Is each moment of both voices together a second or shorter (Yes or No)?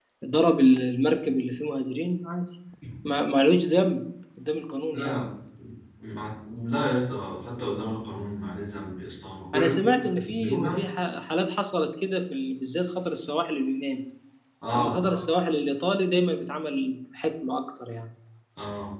No